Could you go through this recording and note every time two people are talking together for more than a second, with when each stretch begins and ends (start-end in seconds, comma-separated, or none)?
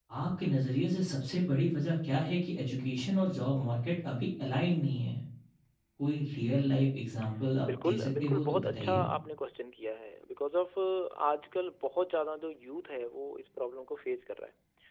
7.8-9.0